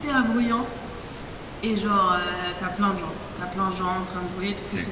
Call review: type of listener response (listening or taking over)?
listening